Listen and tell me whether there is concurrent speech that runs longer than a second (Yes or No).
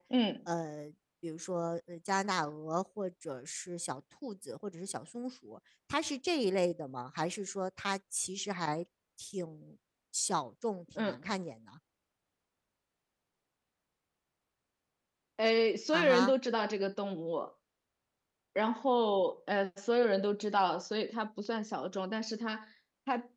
No